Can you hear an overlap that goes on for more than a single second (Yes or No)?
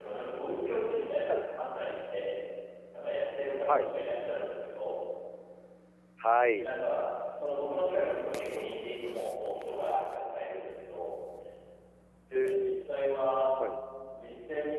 No